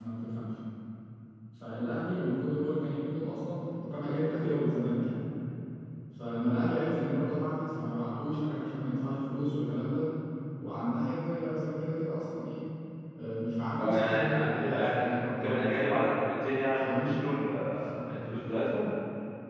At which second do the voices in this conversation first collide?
14 s

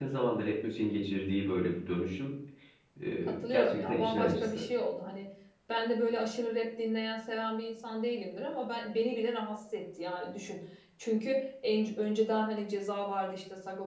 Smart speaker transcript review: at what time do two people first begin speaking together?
3 s

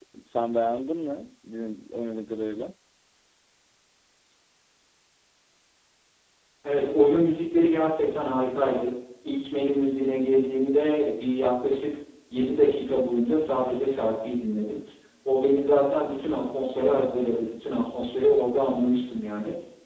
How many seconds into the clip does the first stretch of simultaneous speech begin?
none

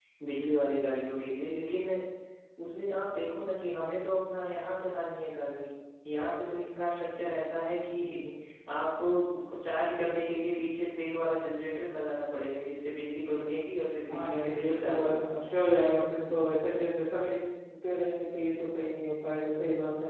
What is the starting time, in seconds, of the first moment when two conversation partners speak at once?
14 s

